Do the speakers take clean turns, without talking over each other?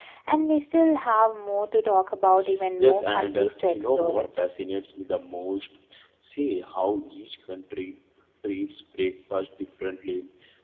No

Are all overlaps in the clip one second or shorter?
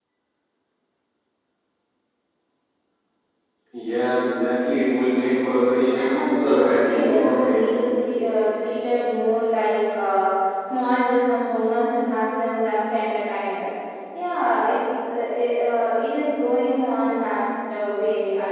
No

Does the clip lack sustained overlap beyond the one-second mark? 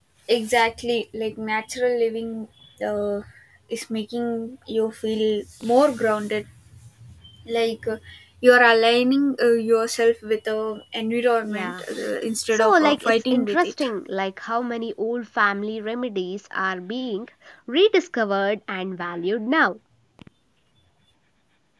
No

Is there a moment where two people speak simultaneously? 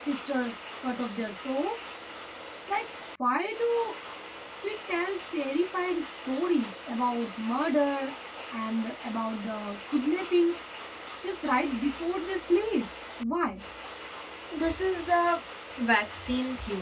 No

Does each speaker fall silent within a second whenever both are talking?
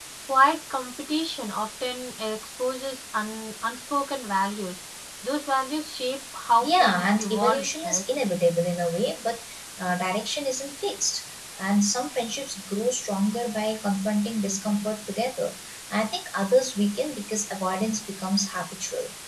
No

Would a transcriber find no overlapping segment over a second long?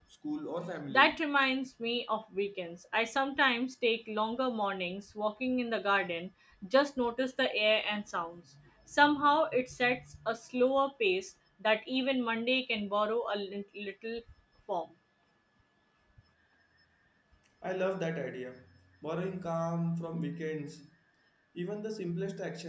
Yes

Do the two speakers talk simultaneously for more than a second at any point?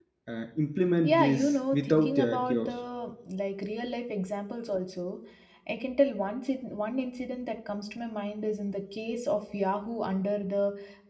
Yes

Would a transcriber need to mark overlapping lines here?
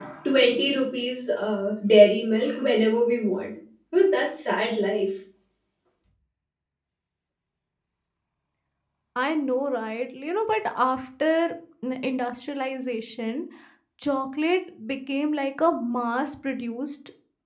No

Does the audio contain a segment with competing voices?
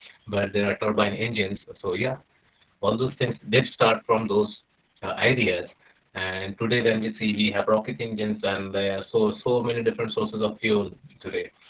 No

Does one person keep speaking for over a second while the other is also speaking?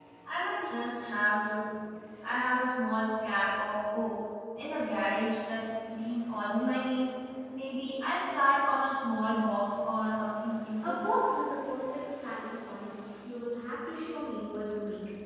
No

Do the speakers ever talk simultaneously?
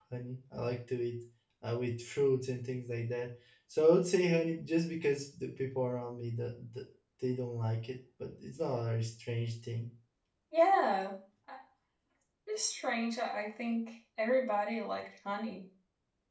No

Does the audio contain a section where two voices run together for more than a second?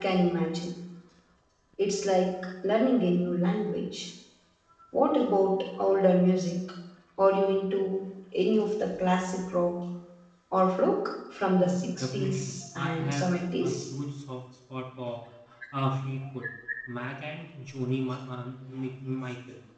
Yes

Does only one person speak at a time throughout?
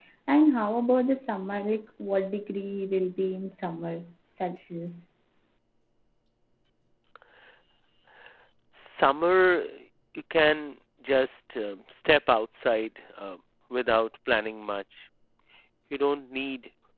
Yes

